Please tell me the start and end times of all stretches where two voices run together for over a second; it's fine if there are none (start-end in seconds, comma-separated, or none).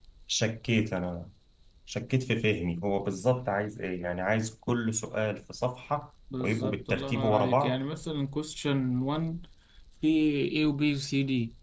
6.4-7.8